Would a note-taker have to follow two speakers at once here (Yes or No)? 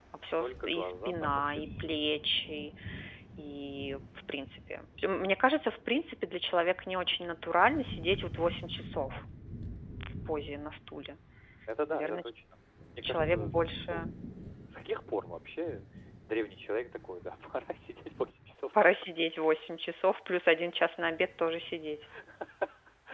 Yes